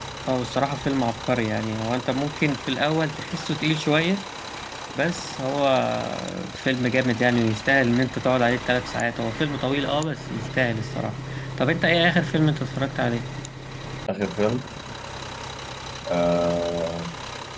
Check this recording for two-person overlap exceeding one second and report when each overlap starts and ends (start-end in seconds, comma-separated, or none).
none